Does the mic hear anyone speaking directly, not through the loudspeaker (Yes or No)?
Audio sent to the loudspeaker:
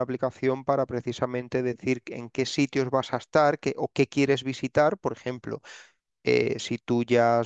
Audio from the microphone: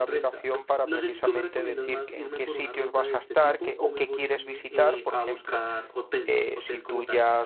Yes